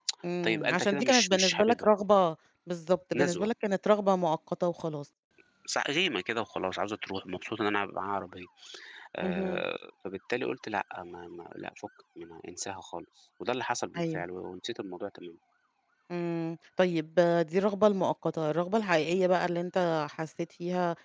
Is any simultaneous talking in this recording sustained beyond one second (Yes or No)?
Yes